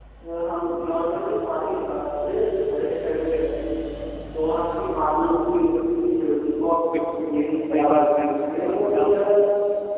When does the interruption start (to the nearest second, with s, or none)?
7 s